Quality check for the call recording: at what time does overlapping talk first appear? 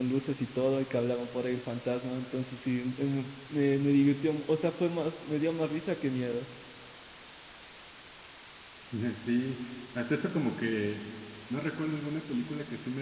none

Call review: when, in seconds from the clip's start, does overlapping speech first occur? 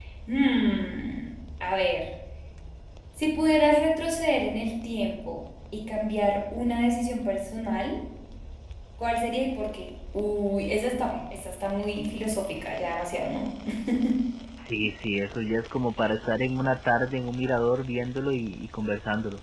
none

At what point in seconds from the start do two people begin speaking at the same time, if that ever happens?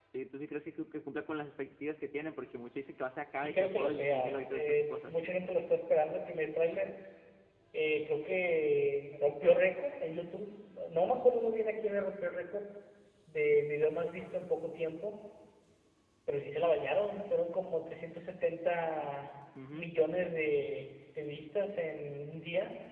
3.4 s

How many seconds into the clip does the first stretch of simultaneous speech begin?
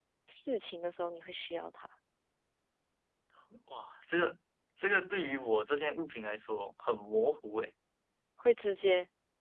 none

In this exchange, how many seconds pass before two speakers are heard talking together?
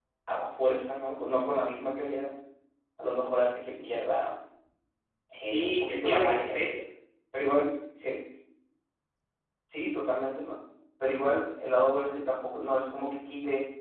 5.4 s

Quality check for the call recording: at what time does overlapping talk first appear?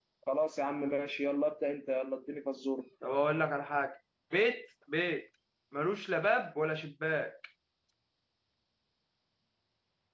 none

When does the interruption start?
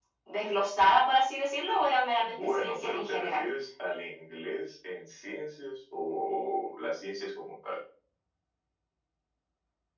2.2 s

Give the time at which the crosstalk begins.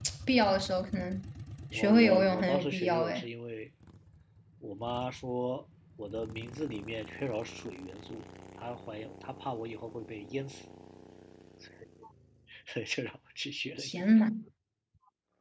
1.7 s

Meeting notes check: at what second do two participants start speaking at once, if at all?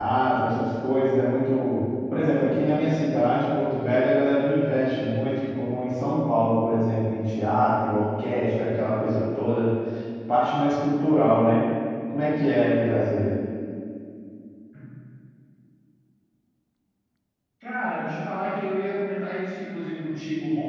none

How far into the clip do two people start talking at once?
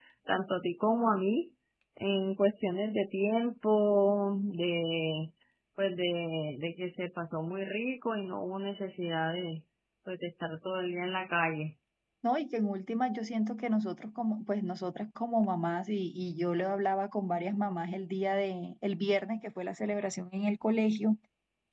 none

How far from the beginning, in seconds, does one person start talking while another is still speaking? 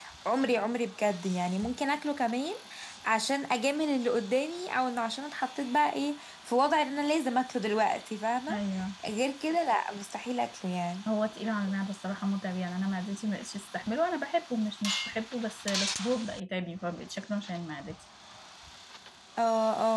none

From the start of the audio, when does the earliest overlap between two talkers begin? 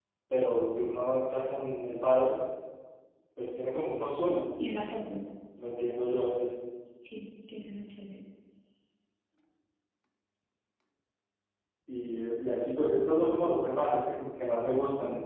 none

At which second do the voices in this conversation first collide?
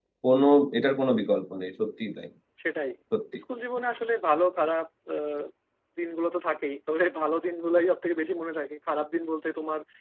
none

